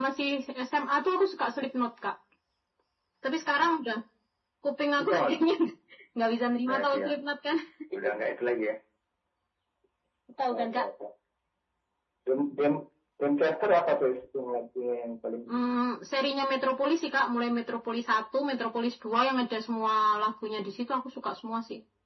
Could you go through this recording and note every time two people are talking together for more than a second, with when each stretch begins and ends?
none

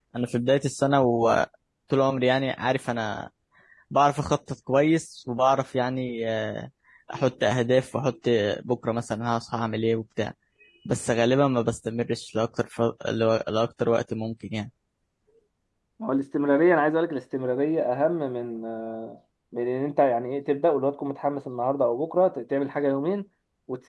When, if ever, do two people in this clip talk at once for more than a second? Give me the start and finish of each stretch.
none

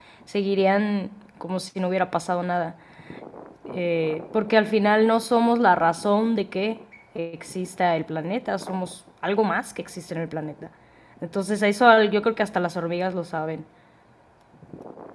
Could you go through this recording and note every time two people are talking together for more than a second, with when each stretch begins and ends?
none

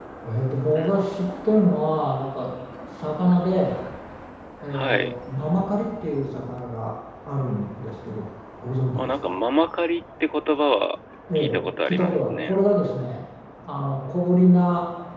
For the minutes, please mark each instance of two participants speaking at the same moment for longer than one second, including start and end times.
11.4-12.6

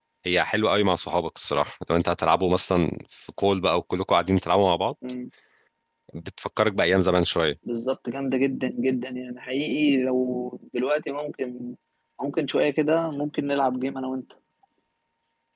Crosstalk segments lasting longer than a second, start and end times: none

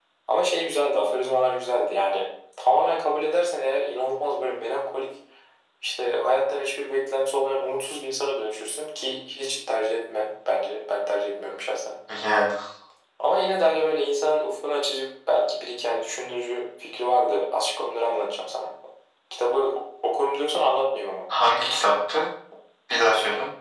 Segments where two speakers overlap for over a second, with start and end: none

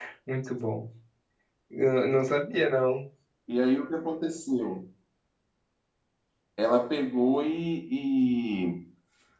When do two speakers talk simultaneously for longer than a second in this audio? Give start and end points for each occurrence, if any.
none

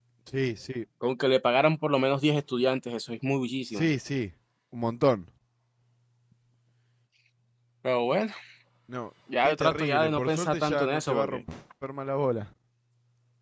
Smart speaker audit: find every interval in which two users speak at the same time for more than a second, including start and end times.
9.4-11.4

